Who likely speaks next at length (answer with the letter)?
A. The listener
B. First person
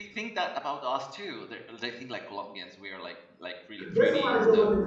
A